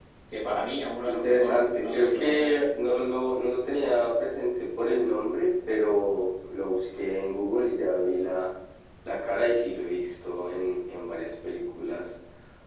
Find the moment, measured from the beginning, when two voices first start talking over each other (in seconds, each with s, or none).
1.1 s